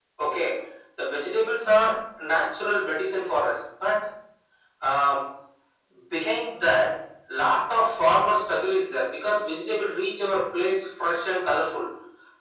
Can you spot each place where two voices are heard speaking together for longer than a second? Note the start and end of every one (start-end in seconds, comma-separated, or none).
none